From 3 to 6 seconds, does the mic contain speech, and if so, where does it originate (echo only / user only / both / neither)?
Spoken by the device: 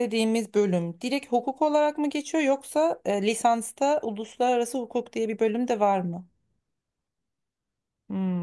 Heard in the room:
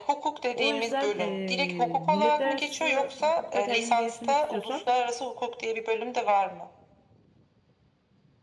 both